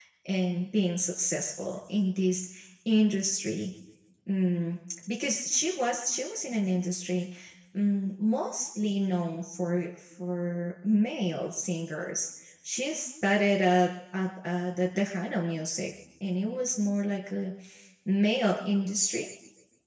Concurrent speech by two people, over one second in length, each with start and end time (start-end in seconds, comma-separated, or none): none